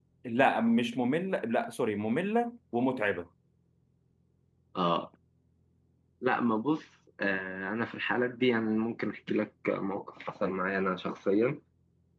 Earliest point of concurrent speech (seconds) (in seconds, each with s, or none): none